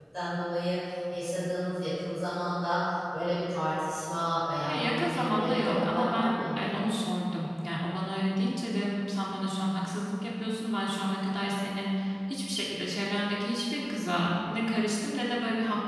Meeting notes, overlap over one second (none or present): present